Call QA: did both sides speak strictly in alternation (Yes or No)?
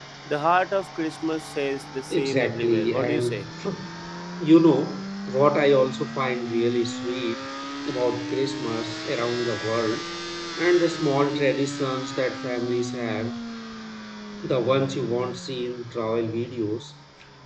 No